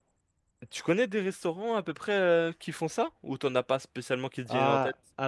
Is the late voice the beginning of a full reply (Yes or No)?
Yes